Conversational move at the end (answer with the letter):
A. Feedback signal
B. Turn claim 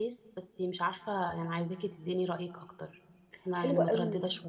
B